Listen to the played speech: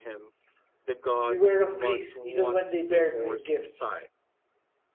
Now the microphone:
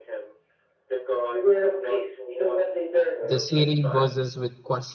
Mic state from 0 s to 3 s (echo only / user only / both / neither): echo only